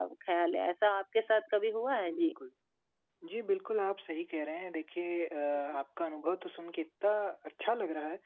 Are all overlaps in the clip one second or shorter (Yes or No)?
Yes